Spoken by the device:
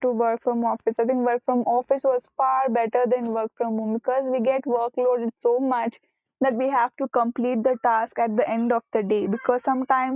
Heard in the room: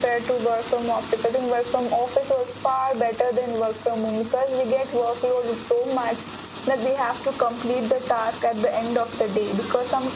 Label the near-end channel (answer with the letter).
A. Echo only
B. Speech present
A